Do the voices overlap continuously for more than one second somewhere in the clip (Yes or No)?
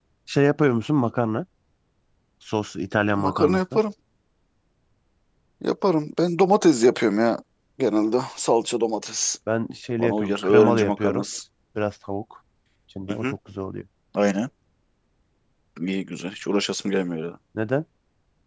Yes